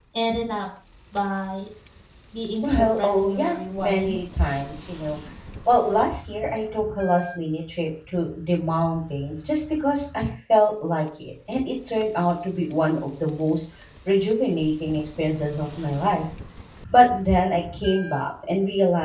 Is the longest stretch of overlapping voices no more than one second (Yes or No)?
No